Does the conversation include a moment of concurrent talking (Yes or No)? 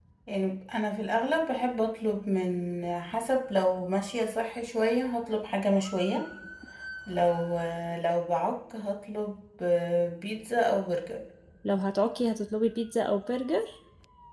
No